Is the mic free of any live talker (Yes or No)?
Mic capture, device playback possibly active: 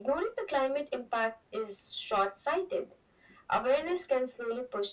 Yes